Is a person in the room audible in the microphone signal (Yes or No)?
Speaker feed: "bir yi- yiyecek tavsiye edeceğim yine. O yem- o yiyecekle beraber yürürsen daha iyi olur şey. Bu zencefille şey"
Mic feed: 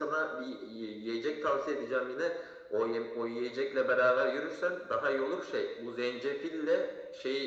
No